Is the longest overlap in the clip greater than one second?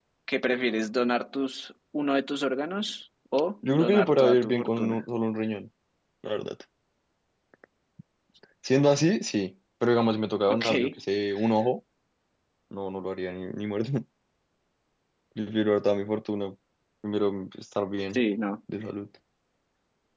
Yes, from 3.8 s

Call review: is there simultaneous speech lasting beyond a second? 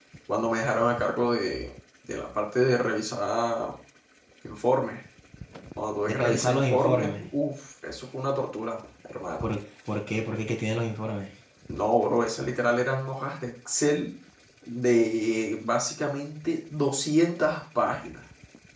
Yes, from 6.1 s

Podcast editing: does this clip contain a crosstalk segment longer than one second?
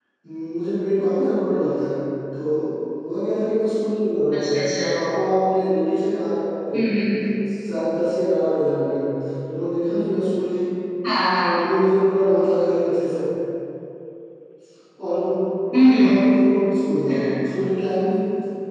No

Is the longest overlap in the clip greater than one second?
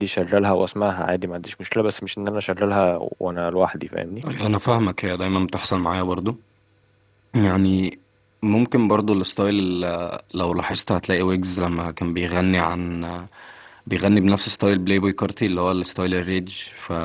No

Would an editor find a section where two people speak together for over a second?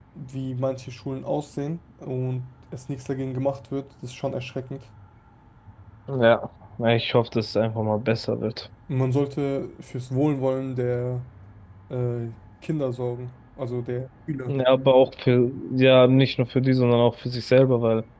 No

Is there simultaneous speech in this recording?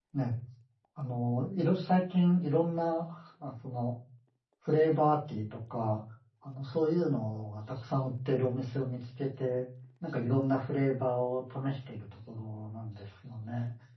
No

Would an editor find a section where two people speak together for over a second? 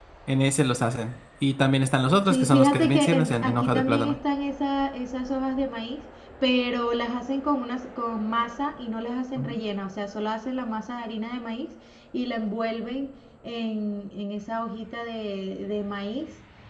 Yes, from 2.3 s

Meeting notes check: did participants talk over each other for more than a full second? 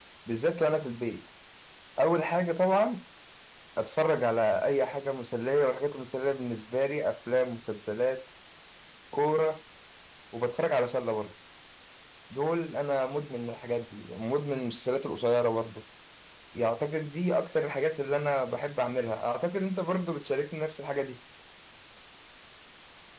No

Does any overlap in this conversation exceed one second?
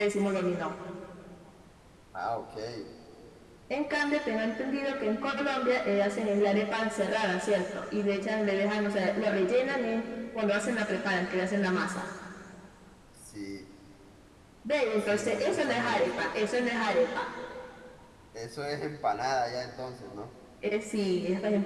Yes, from 15.0 s

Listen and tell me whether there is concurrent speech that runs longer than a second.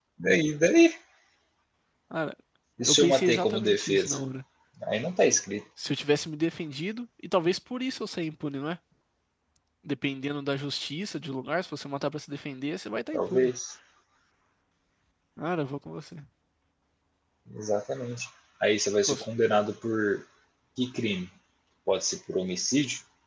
Yes, from 2.9 s

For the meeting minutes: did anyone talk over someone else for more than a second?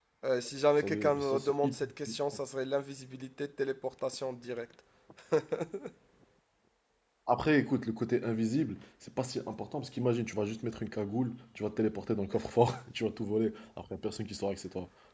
Yes, from 0.8 s

